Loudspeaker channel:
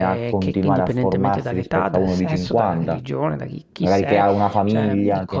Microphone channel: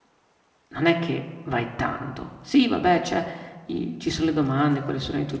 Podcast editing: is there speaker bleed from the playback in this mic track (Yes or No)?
No